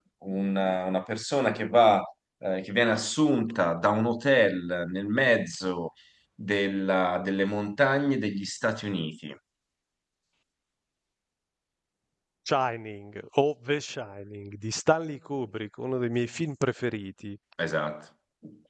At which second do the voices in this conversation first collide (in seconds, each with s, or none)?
none